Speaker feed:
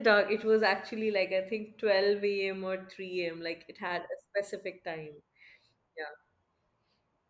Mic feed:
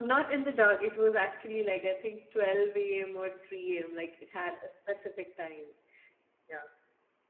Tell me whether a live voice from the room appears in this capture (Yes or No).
No